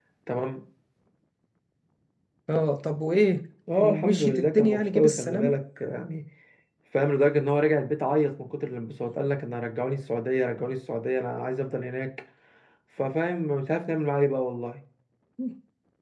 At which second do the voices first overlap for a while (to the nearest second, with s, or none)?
4 s